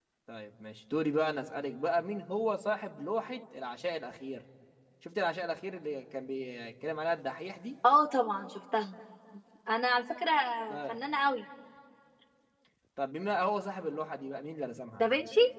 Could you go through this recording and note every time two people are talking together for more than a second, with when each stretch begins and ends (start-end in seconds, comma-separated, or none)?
none